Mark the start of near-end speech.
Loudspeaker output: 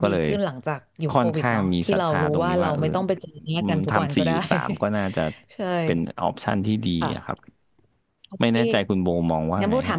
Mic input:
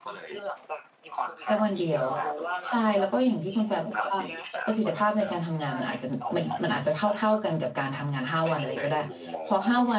1.4 s

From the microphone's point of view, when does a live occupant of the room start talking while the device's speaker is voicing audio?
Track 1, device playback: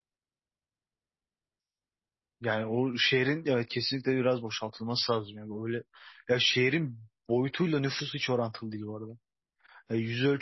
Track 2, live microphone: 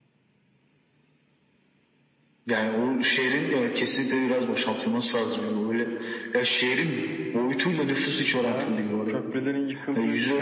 8.3 s

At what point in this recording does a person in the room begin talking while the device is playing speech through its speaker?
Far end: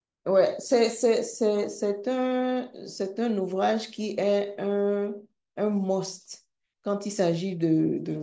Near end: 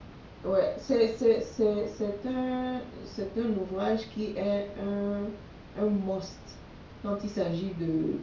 none

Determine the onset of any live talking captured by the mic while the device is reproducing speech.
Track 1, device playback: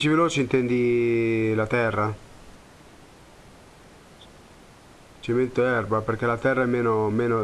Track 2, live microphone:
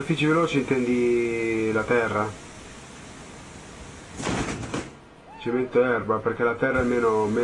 none

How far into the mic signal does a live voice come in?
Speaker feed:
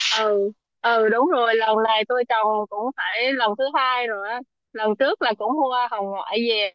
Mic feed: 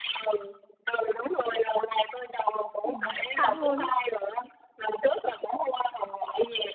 2.8 s

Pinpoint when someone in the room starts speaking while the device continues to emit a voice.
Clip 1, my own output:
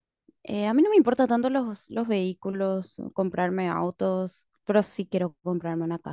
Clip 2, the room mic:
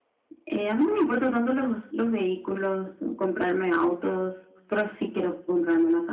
none

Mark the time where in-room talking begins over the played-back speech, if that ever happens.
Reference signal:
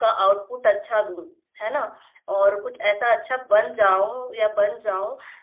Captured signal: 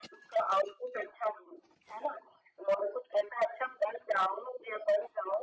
none

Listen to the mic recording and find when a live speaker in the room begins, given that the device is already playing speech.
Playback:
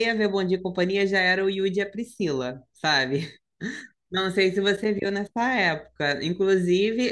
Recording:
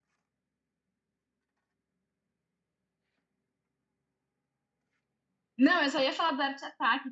5.6 s

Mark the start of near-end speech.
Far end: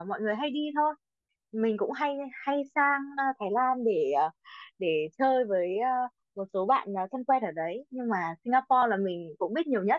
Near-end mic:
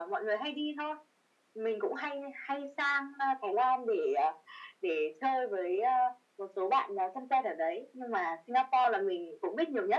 none

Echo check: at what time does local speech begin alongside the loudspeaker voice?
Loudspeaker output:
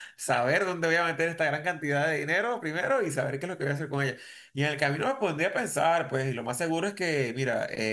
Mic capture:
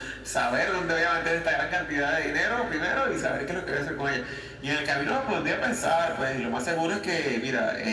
none

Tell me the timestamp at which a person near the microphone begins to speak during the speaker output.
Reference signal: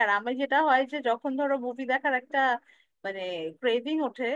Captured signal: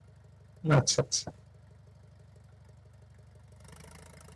0.8 s

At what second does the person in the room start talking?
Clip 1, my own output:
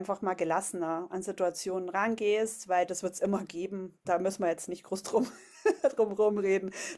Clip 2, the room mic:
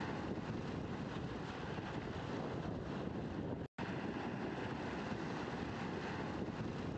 none

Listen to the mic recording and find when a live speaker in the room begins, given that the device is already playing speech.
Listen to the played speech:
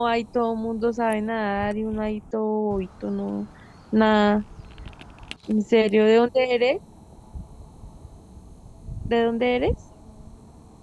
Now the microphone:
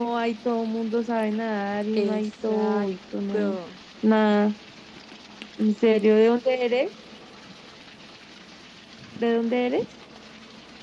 1.9 s

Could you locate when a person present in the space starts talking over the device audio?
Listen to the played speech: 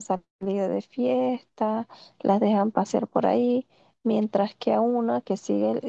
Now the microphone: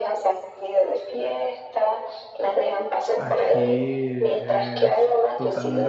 3.1 s

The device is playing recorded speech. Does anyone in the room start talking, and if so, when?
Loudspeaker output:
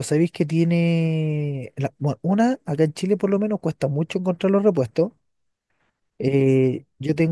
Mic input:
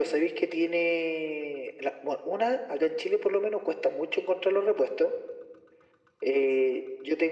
none

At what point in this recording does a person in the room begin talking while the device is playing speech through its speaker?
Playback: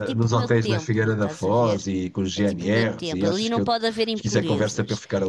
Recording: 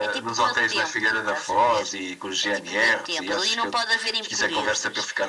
none

